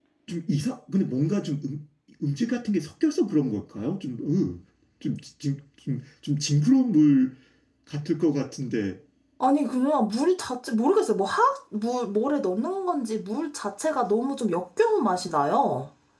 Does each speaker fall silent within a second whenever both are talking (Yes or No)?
Yes